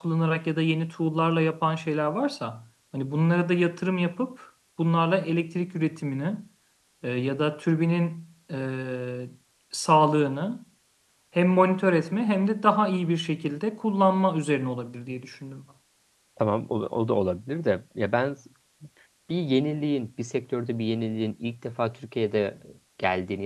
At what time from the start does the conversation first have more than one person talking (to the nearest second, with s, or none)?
none